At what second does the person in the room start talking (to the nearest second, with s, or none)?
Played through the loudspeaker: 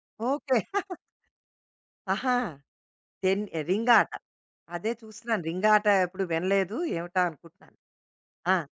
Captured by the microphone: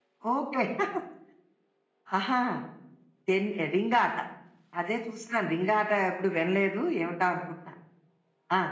none